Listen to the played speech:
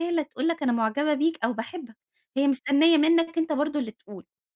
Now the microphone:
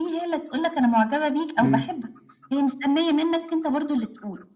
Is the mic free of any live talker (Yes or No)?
No